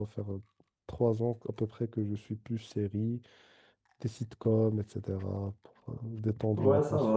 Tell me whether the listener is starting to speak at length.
Yes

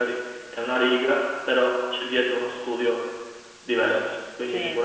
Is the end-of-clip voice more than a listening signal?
Yes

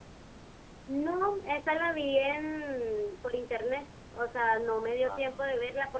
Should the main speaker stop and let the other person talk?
No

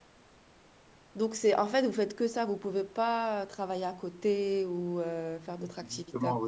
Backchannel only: No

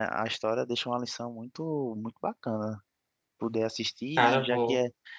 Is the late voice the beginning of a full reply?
No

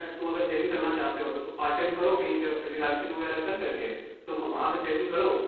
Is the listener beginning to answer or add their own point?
No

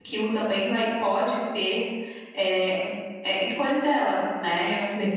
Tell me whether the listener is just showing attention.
No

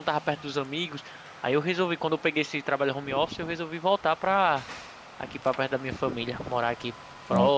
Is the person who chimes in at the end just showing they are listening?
Yes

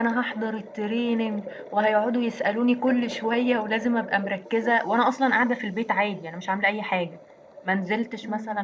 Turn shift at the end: No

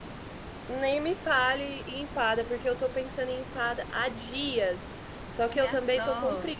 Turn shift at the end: No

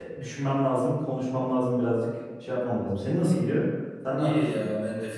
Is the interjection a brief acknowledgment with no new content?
No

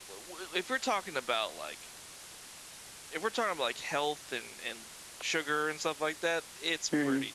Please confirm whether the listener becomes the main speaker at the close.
Yes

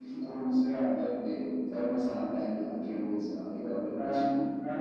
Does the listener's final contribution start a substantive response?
Yes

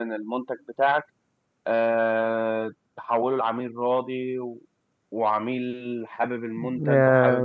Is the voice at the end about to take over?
No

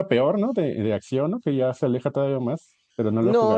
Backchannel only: No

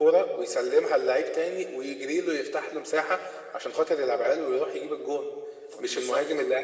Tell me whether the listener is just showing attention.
Yes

